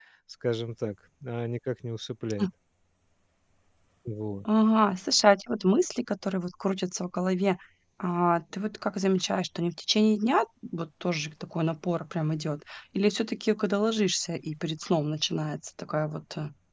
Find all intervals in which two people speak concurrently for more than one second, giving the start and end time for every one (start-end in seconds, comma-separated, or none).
none